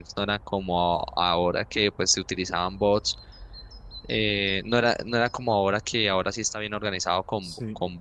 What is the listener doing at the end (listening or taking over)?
listening